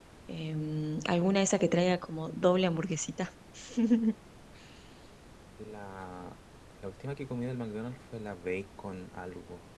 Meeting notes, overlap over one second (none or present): none